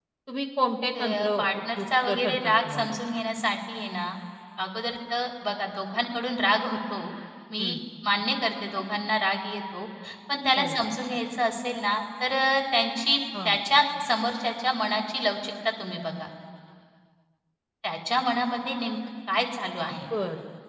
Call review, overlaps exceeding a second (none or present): present